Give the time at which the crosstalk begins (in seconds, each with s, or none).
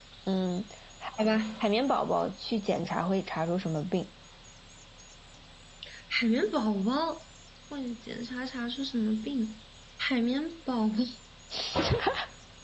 none